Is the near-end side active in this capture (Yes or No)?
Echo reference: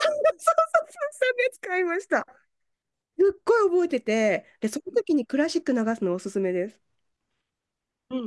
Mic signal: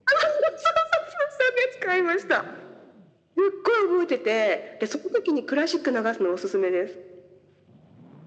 No